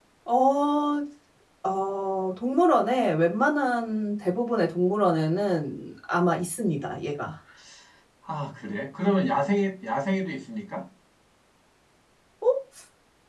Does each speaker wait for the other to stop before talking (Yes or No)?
Yes